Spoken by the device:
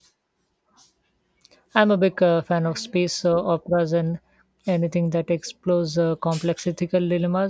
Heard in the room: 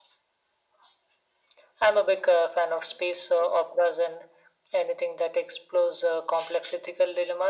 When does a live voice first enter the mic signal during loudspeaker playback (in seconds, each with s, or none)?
none